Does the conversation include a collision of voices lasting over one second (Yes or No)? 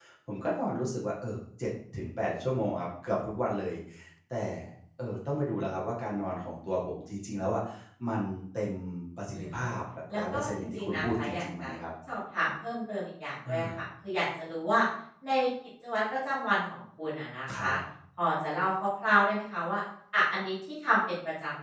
Yes